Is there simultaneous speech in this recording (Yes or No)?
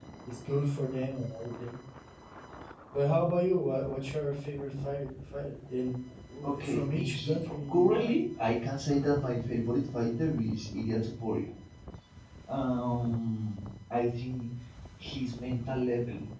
Yes